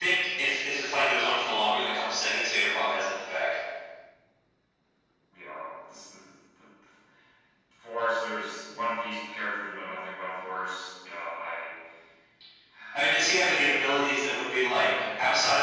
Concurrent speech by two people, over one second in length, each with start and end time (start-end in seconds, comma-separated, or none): none